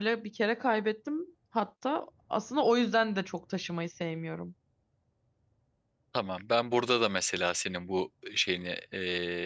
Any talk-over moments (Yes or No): No